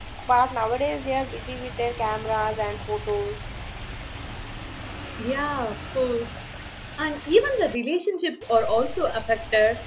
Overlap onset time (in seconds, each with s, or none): none